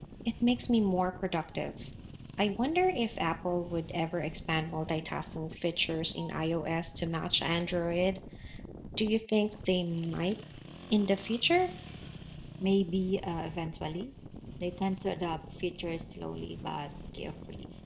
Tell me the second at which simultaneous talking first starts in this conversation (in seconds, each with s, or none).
none